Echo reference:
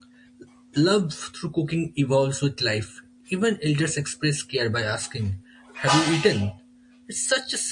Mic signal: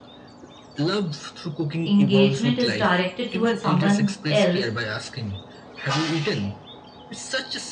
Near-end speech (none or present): present